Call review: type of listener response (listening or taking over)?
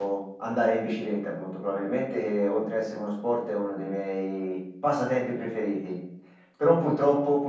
listening